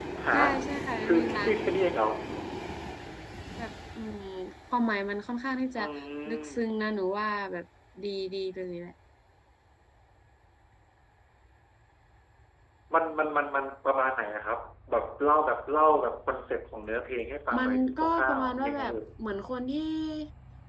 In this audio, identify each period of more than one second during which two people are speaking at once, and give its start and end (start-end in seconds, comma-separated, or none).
17.6-18.8